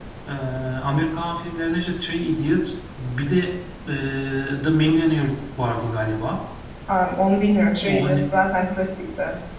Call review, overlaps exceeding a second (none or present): none